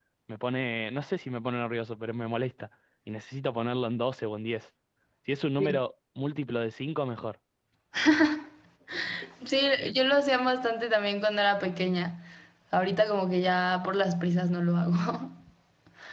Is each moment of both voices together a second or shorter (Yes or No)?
Yes